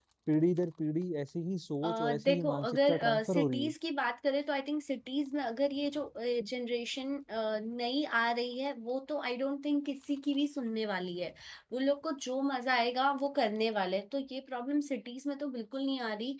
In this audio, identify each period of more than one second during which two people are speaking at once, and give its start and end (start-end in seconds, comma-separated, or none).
1.8-3.7